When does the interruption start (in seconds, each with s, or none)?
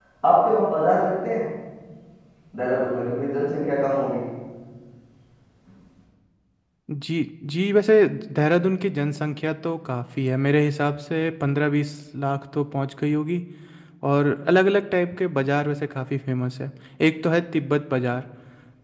none